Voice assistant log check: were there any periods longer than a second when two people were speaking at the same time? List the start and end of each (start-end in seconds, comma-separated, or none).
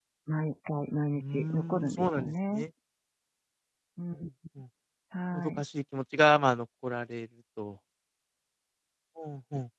1.2-2.6